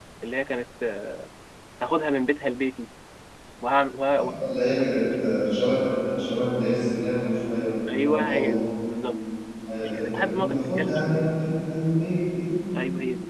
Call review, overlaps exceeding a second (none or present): present